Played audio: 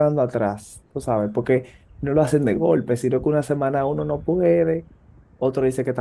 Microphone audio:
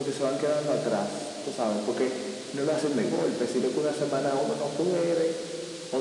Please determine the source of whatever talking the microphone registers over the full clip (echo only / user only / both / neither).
echo only